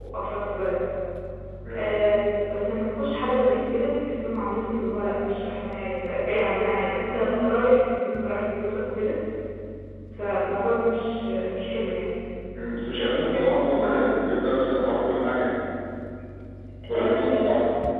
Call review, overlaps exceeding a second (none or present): present